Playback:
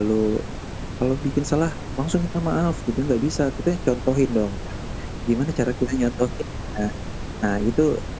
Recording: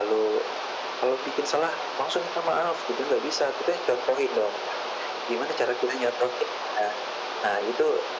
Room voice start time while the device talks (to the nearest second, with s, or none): none